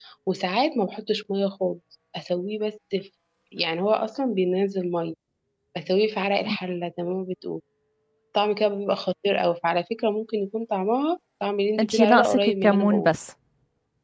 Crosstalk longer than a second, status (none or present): present